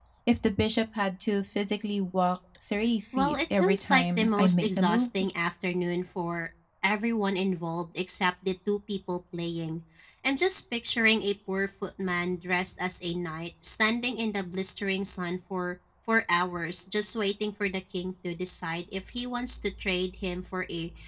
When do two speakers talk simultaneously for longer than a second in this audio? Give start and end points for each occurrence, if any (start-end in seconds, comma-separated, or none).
3.2-5.1